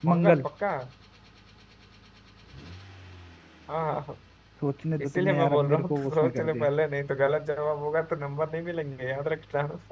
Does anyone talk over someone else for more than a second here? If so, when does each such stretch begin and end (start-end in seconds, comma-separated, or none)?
5.0-6.7